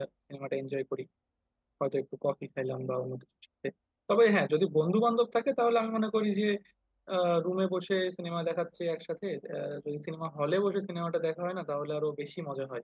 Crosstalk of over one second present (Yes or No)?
No